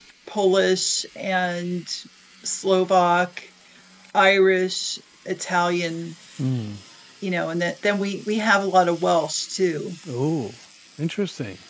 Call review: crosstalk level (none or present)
none